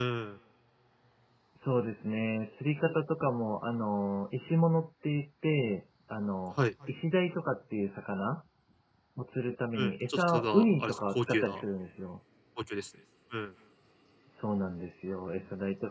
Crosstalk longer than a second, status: present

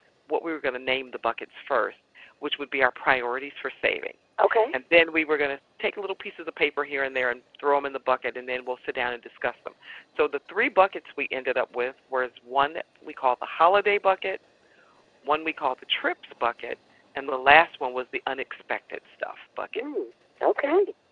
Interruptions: none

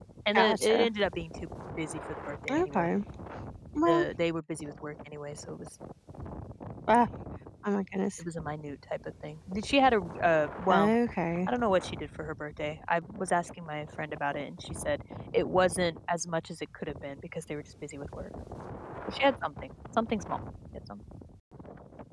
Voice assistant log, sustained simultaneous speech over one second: none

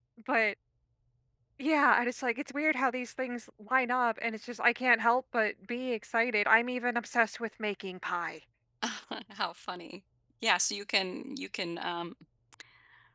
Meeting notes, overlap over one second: none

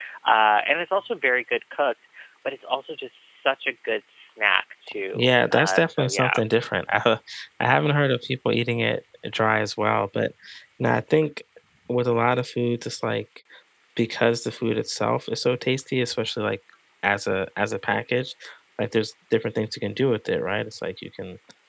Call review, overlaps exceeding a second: present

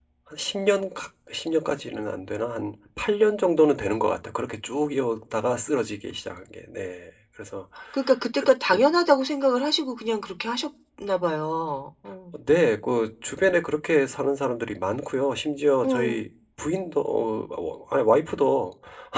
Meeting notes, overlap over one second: none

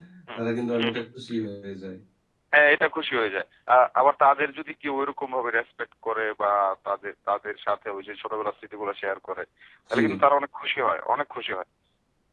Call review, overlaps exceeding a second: none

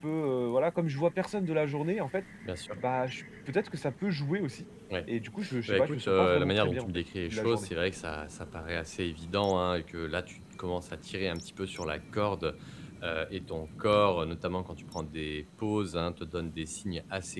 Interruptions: present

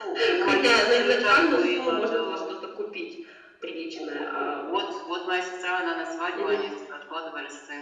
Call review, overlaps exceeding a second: present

